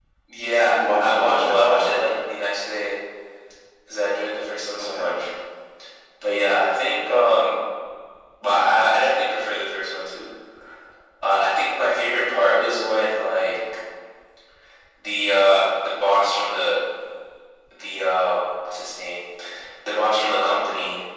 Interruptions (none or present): present